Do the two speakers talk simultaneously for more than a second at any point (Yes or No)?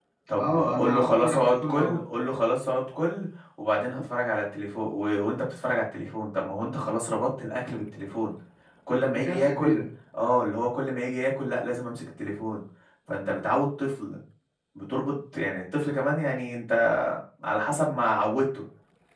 Yes